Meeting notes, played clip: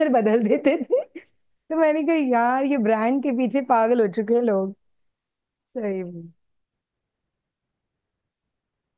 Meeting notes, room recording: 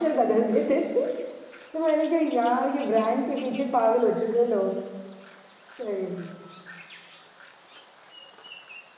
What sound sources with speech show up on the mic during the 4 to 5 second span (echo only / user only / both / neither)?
echo only